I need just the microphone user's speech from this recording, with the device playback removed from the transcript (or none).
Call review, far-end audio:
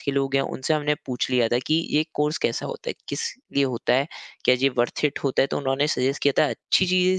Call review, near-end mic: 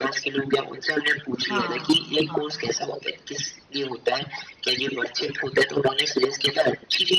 हाँ, हाँ,